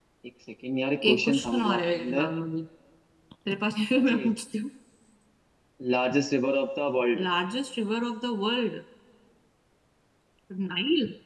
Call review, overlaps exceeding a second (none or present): present